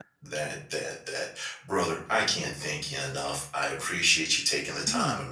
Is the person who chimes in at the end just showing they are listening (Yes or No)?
Yes